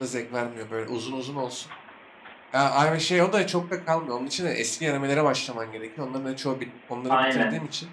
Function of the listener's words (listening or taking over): listening